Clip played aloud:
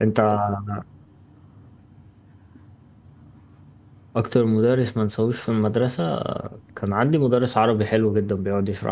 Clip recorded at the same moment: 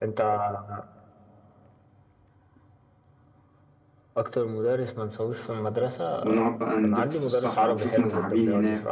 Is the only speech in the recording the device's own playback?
No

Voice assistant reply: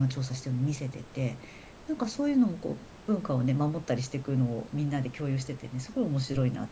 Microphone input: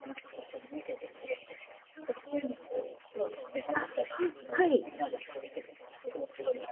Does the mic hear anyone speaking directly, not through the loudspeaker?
Yes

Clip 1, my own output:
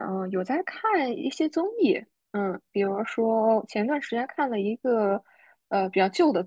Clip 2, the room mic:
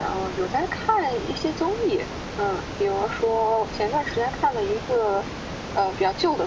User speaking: No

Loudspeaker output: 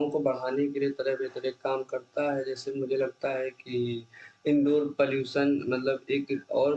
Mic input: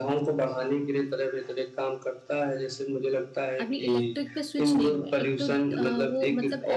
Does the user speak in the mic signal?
Yes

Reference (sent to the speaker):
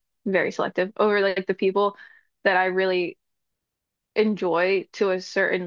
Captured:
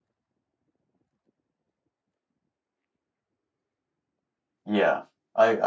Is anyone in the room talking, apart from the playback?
Yes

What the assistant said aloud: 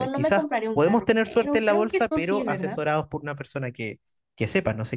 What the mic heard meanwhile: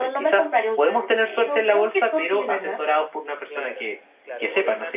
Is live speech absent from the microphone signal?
No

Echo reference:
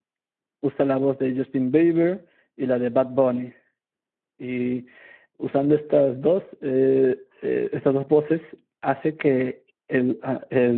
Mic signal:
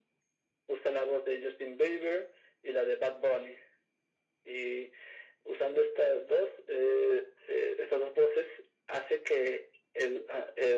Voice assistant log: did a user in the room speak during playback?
No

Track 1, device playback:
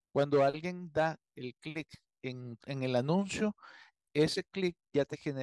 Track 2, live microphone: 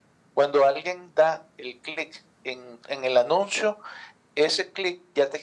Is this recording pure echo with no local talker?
Yes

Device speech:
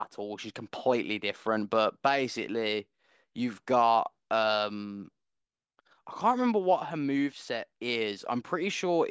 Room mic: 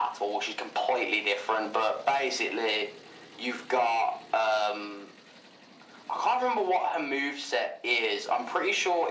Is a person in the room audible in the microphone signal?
No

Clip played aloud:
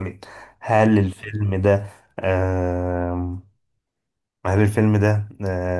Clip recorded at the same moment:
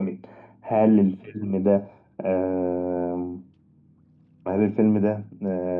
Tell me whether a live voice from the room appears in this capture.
No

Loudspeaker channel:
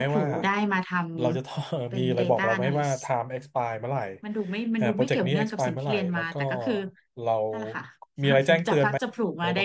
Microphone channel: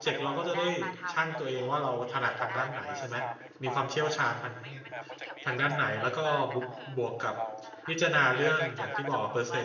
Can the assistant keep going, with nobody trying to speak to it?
No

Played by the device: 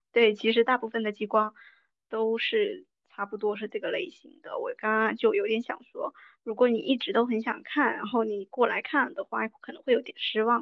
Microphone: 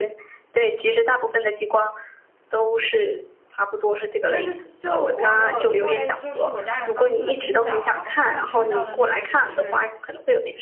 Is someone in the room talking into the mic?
Yes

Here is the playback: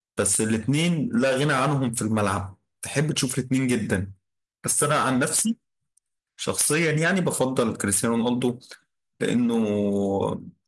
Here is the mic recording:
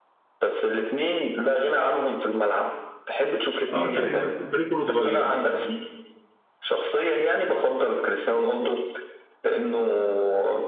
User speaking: Yes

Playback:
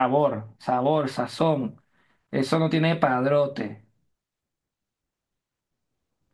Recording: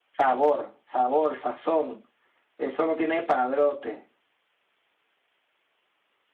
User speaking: No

